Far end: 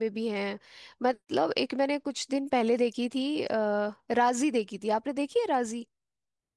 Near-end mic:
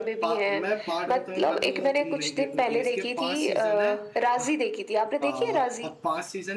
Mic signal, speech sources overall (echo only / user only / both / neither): both